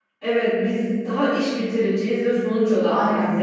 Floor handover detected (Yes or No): No